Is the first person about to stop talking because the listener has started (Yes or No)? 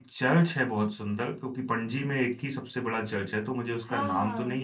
Yes